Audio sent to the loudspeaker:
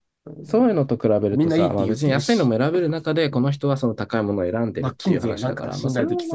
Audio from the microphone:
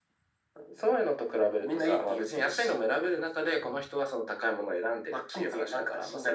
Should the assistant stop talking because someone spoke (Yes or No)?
No